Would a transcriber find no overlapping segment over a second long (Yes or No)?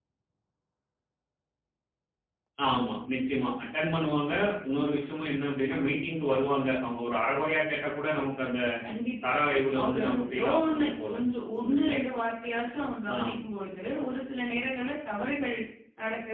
No